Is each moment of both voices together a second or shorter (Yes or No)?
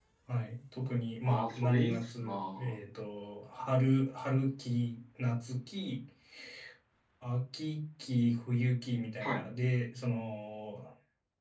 No